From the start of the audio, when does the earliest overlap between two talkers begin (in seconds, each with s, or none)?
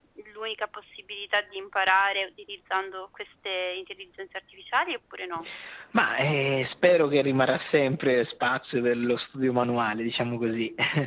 none